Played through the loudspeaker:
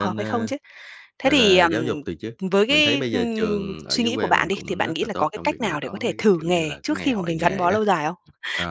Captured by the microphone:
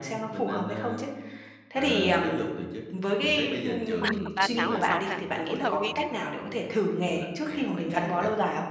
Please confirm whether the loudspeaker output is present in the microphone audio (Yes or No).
Yes